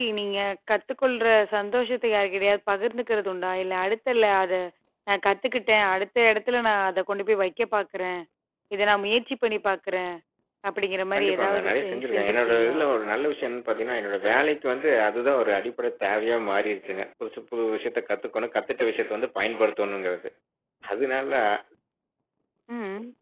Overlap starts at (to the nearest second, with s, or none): 11 s